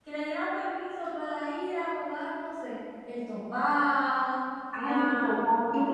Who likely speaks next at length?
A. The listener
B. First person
A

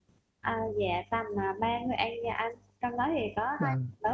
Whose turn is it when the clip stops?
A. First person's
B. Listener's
A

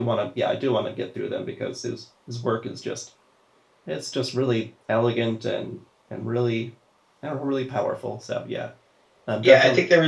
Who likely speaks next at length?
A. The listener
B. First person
A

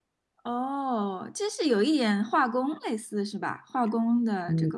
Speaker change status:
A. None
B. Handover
B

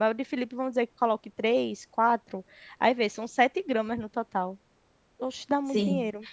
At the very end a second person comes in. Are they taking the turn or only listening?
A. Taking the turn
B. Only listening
A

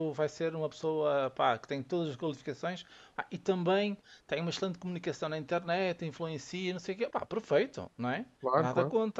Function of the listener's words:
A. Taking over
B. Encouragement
B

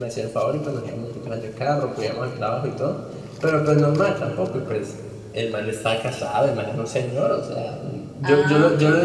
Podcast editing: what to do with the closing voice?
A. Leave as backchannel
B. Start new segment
A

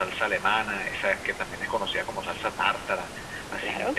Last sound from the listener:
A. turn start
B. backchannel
B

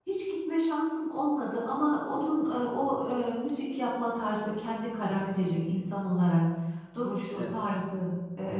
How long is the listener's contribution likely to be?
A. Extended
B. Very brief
B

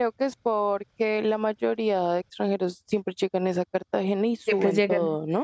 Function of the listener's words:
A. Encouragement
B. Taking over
B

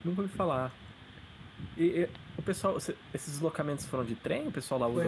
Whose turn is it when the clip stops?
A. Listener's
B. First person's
A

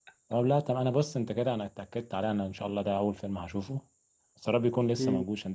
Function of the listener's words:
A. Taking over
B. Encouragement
B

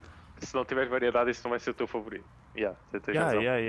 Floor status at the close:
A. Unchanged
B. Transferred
B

